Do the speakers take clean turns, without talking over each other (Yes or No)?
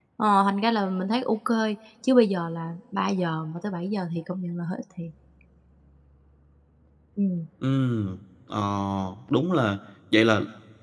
Yes